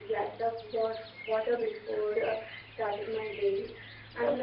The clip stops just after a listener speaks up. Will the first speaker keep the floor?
Yes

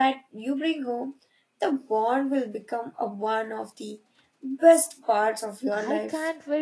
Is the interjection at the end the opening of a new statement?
Yes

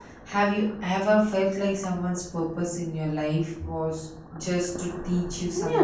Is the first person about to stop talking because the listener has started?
Yes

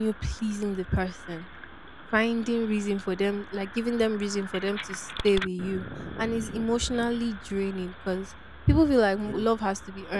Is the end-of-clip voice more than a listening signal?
No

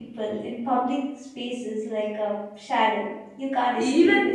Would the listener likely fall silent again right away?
No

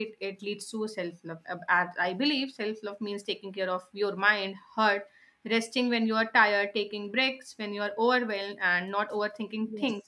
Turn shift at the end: No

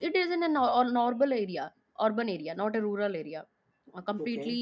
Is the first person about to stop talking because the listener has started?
No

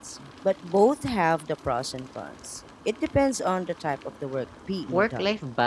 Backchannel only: No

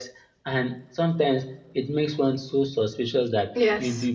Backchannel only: Yes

